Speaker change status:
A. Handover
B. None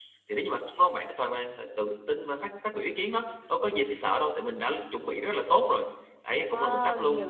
A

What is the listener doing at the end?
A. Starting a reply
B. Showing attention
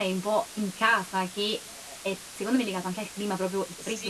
A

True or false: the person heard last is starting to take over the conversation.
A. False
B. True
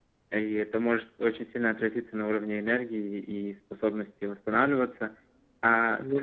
A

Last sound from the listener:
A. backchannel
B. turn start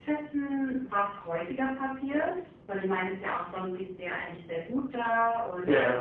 A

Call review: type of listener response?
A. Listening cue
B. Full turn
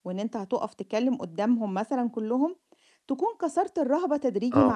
B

